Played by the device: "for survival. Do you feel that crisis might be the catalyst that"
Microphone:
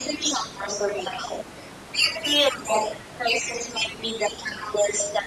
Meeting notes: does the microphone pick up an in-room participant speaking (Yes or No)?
No